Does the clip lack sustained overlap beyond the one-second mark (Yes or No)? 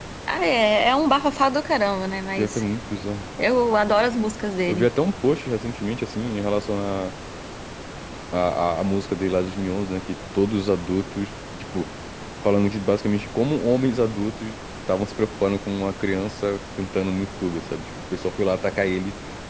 Yes